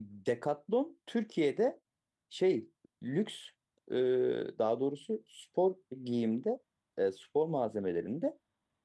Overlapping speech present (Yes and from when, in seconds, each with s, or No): No